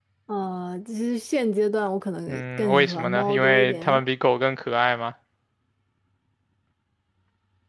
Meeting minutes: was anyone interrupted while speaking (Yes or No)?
Yes